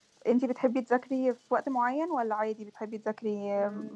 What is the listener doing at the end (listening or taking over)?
taking over